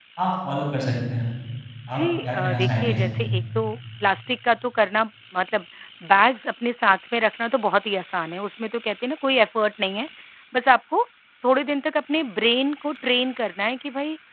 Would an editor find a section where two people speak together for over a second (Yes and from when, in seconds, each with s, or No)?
Yes, from 1.9 s